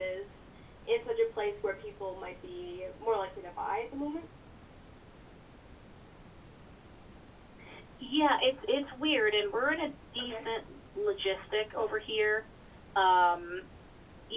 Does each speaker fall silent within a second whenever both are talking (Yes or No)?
Yes